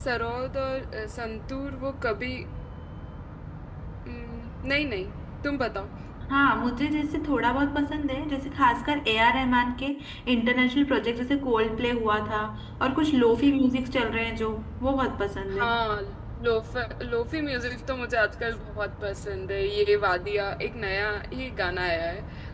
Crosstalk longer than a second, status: none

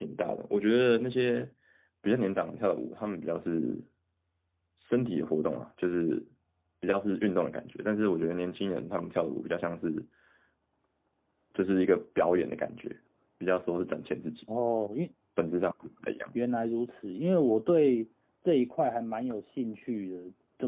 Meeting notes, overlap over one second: none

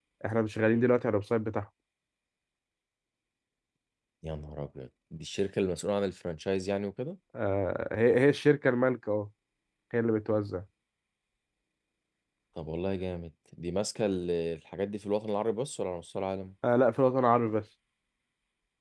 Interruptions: none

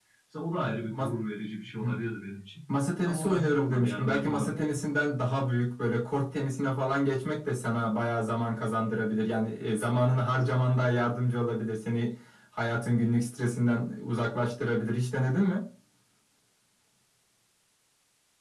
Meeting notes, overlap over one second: present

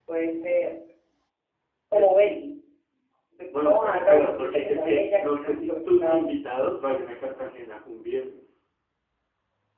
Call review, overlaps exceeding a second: present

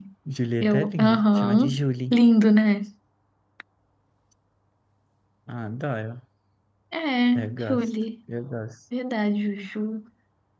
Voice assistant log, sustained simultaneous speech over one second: present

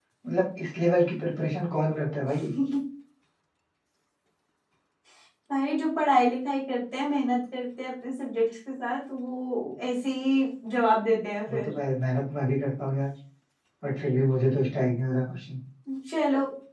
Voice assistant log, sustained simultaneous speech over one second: none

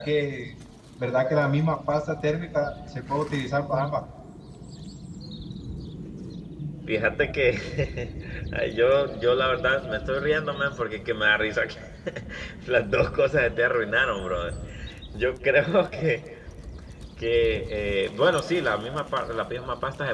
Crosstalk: none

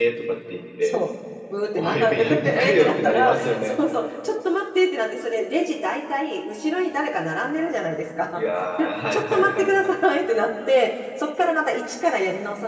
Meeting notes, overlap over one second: present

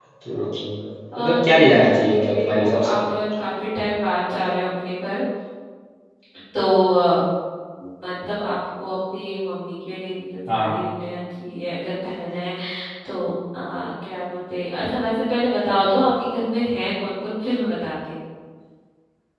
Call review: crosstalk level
present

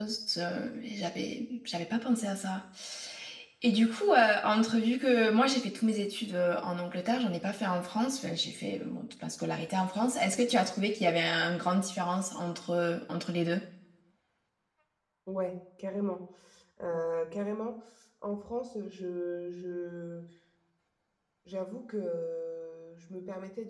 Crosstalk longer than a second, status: none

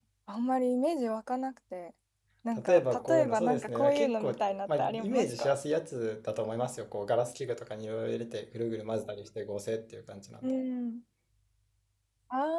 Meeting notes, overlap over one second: present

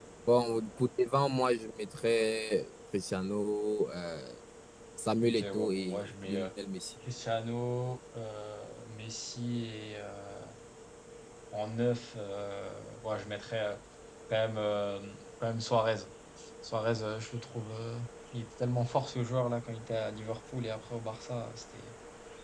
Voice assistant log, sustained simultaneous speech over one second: present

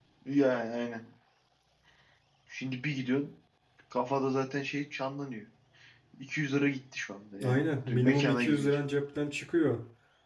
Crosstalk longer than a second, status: present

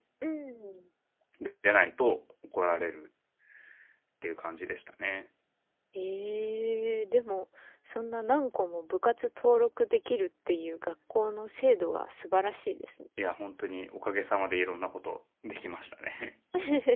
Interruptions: none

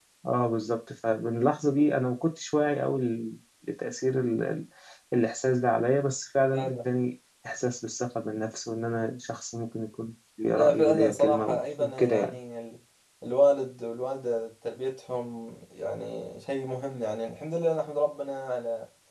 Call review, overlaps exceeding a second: present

